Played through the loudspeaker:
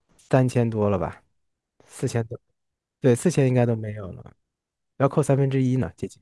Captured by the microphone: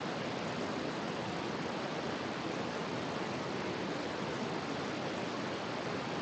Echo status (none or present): none